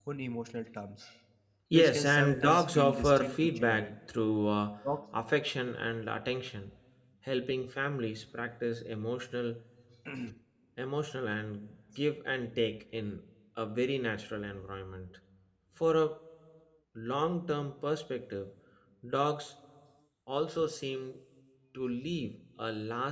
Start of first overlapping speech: 2 s

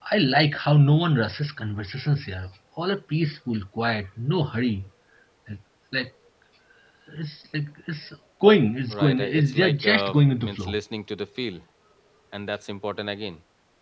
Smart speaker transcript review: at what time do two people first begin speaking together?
9 s

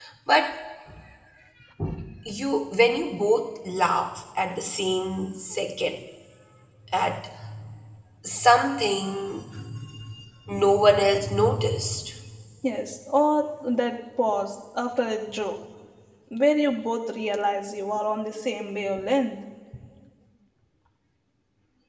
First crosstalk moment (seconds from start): none

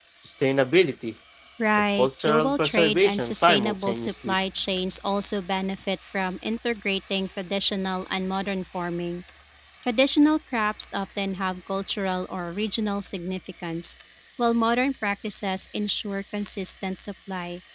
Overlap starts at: 2 s

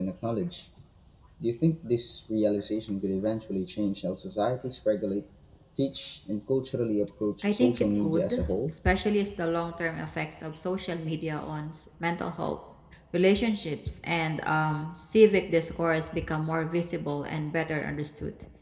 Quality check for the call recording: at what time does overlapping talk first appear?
7 s

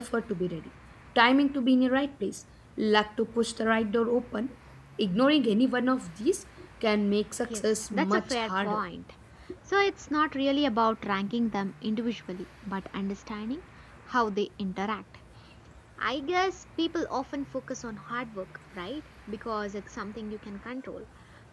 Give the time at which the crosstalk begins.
8 s

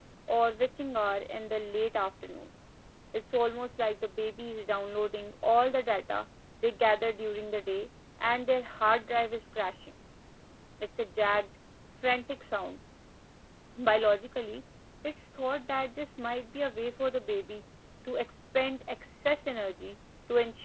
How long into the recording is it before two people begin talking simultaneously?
none

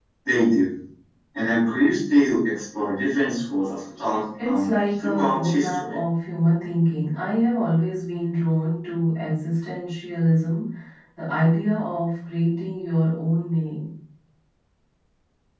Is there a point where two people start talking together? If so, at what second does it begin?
4 s

